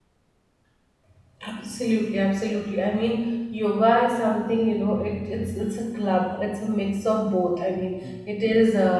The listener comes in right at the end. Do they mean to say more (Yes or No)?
No